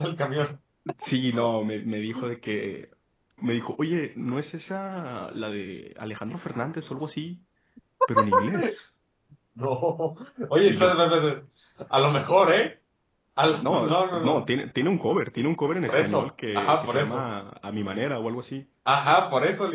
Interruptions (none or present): present